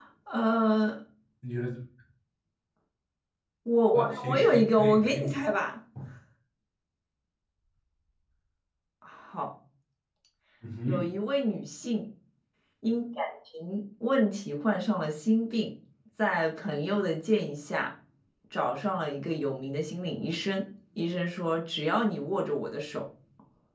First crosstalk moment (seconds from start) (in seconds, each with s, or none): 3.9 s